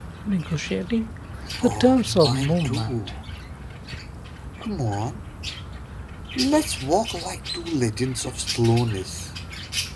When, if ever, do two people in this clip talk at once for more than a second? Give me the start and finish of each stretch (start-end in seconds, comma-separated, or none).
1.6-3.0